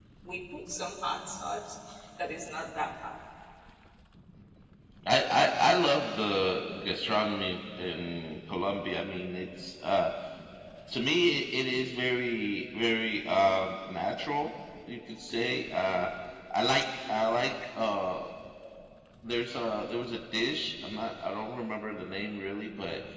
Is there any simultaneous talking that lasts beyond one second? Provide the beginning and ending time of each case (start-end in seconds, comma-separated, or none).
none